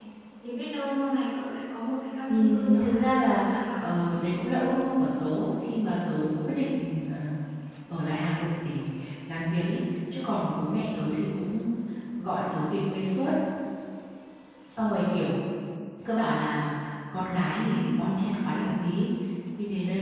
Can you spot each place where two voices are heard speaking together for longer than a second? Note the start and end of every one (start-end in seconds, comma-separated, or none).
2.3-3.8